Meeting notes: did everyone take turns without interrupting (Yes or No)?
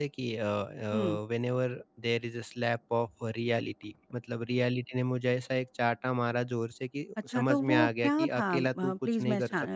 No